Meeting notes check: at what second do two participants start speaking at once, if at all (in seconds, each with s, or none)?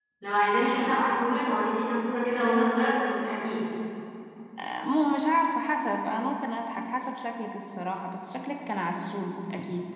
none